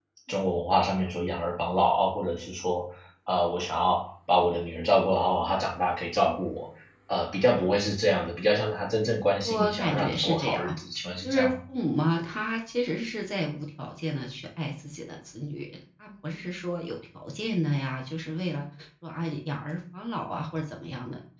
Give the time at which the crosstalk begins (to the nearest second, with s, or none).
9 s